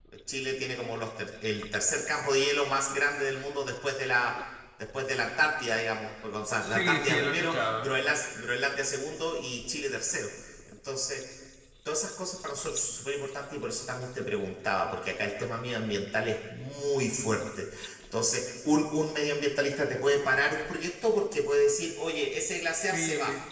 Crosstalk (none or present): present